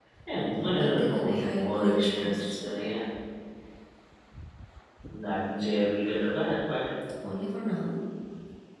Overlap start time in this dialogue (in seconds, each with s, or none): 0.7 s